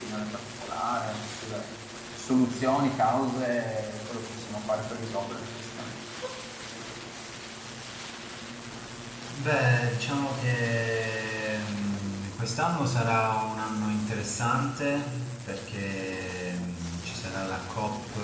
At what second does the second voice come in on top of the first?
none

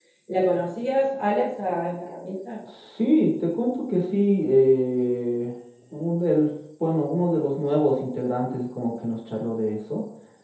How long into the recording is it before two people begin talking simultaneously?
none

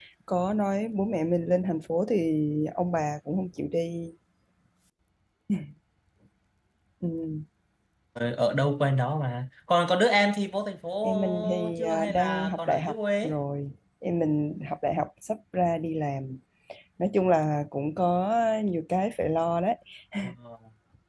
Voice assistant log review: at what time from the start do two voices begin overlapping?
11.0 s

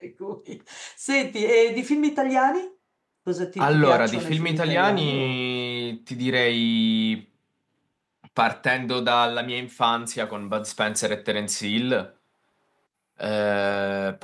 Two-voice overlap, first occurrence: 3.6 s

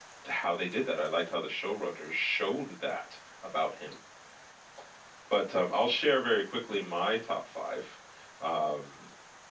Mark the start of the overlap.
none

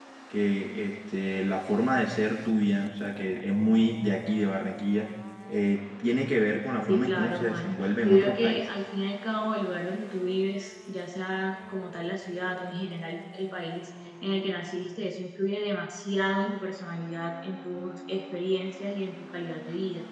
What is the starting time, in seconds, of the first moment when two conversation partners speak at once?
6.9 s

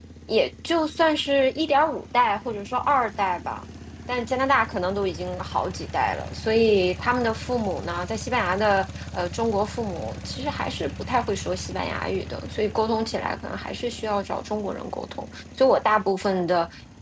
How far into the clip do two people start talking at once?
none

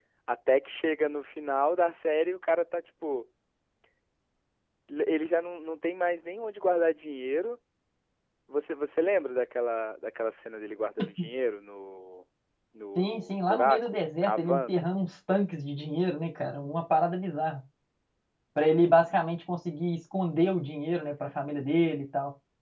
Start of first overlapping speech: 13.0 s

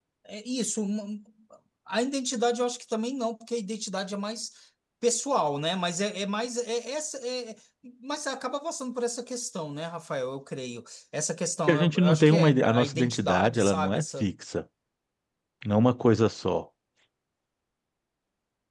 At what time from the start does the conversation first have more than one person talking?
11.7 s

